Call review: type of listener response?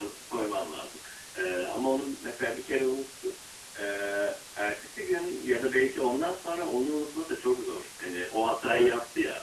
listening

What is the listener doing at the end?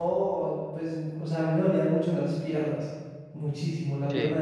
listening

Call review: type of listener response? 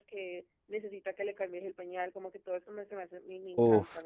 taking over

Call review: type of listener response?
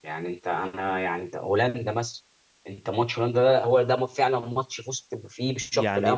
taking over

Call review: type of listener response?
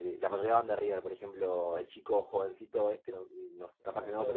listening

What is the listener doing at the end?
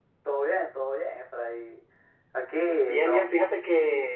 taking over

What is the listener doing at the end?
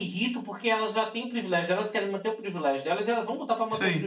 taking over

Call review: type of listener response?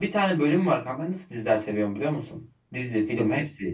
listening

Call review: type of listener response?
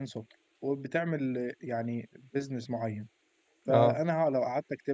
listening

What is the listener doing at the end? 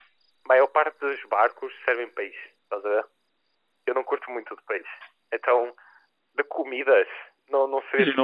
taking over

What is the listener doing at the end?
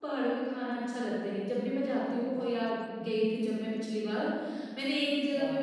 listening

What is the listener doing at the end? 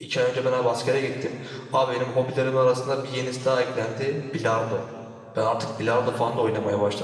listening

